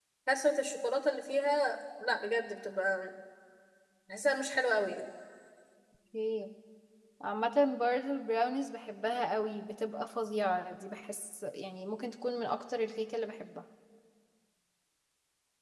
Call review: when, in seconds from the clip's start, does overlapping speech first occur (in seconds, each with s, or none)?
none